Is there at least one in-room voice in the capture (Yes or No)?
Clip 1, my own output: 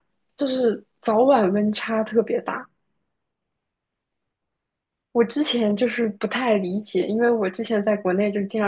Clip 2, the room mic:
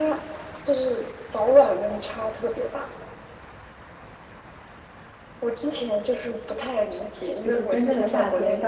Yes